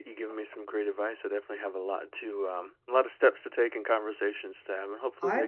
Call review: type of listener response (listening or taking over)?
taking over